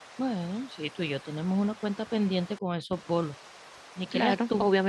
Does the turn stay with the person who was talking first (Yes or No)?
No